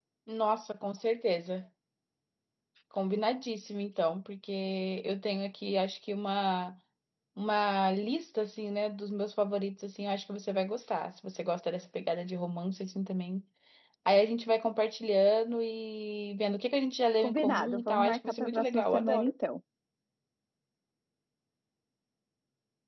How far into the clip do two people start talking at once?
17.2 s

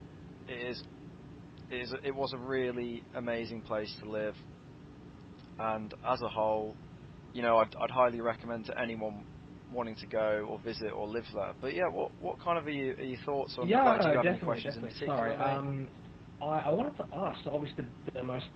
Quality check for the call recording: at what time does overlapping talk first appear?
13.6 s

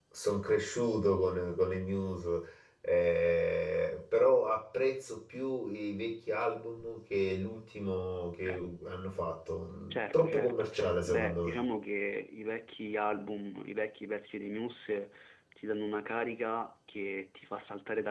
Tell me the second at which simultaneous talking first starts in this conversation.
9.9 s

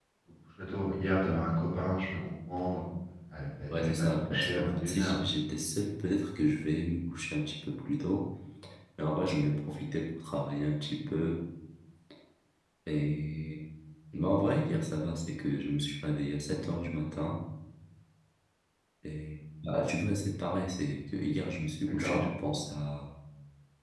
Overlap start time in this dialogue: 3.8 s

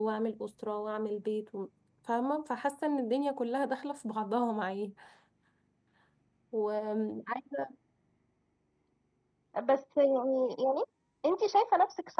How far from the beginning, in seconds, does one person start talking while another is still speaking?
none

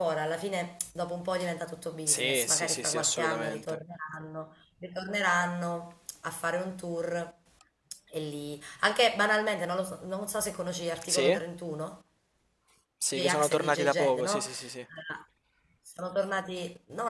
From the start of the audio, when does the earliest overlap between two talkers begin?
2.1 s

